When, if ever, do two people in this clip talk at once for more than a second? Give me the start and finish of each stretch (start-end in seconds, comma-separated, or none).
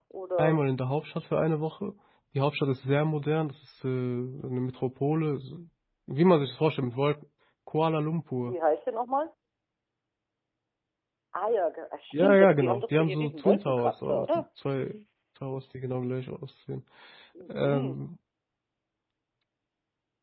12.1-14.3